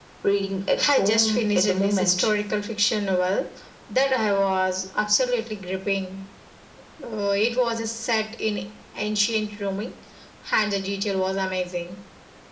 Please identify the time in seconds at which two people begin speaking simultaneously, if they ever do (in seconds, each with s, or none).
0.9 s